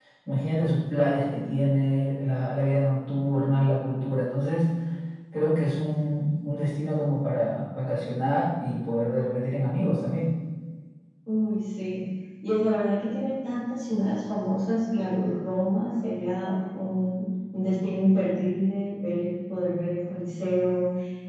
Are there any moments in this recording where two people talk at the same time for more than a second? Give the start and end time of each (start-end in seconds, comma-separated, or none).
none